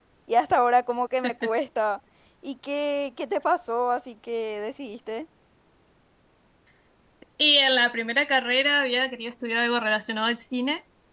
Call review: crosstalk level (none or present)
none